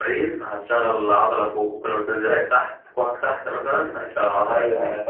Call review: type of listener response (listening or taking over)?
taking over